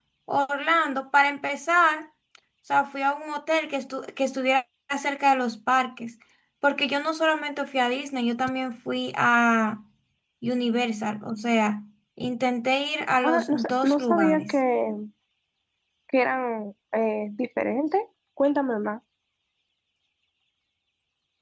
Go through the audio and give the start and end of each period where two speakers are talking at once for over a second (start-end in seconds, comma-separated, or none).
13.2-14.6